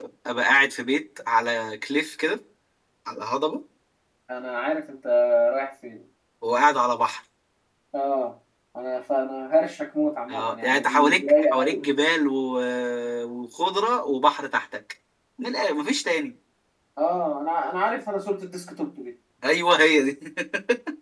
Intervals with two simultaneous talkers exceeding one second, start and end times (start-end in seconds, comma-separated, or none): 10.3-11.9